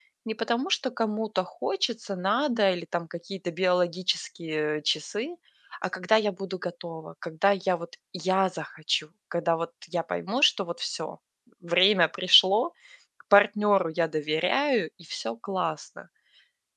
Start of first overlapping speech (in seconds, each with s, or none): none